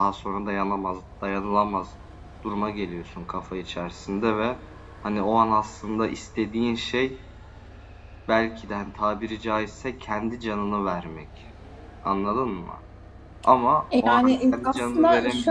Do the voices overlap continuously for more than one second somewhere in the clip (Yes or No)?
Yes